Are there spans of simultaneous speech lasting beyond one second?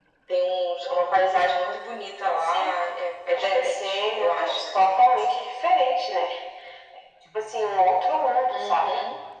Yes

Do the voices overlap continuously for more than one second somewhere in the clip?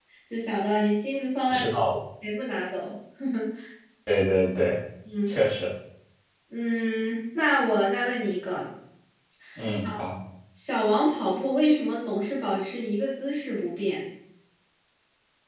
No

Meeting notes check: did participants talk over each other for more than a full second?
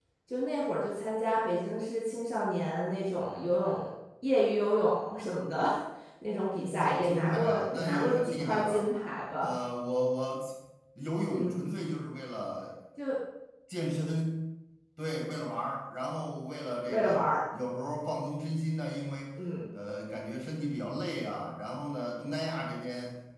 Yes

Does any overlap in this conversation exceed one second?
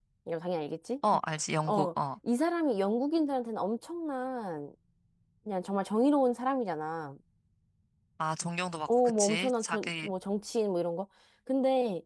Yes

